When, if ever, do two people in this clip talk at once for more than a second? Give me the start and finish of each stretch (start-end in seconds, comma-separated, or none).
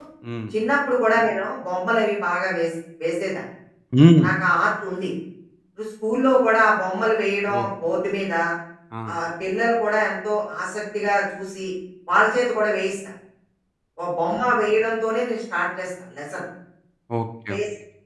none